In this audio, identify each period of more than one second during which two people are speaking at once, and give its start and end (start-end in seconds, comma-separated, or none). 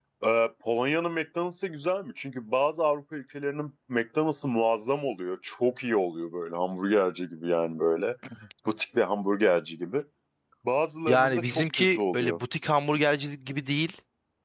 11.1-12.4